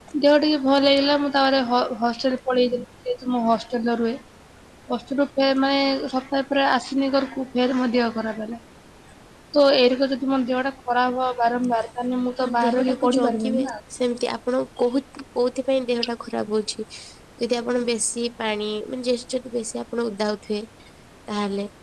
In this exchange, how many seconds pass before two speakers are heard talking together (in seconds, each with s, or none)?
12.4 s